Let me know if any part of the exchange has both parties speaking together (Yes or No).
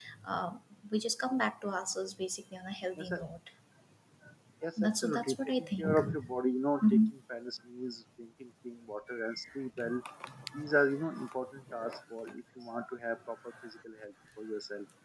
Yes